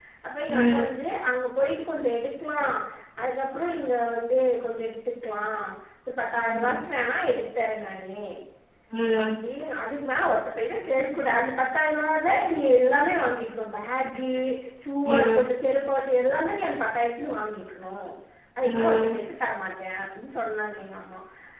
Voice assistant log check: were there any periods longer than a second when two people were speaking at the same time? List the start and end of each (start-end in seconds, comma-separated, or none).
none